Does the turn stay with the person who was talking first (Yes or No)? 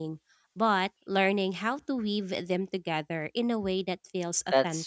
No